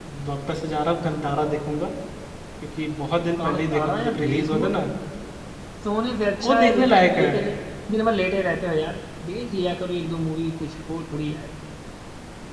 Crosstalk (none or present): present